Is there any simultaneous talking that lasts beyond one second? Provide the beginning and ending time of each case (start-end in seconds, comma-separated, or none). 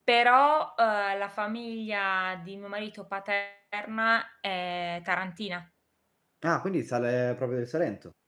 none